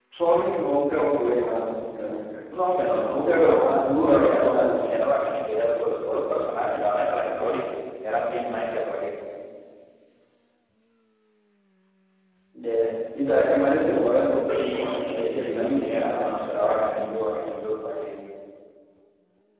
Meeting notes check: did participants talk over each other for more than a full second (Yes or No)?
Yes